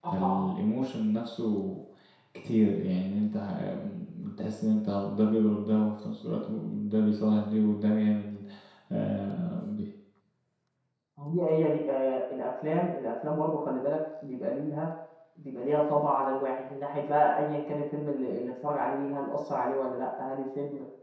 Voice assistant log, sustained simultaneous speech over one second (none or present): none